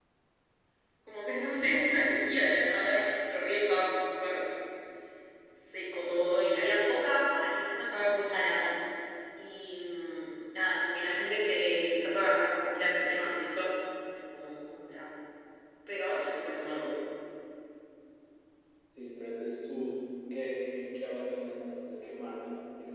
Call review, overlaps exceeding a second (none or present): none